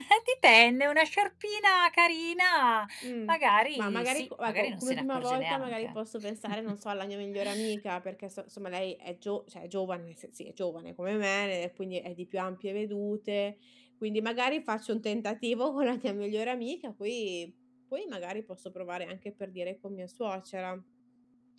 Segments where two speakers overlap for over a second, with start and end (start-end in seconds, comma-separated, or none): 3.8-5.9